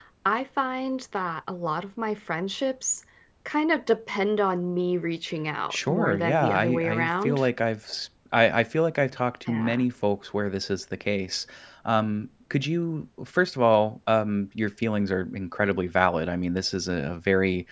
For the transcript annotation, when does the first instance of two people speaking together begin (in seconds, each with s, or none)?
5.7 s